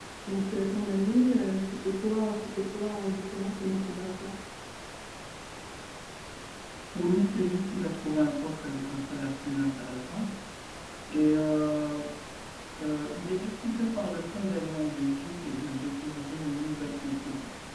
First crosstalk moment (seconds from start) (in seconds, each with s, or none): none